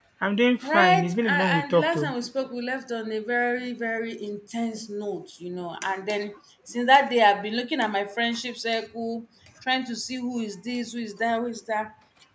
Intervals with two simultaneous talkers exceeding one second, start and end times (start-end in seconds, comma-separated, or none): 0.7-2.1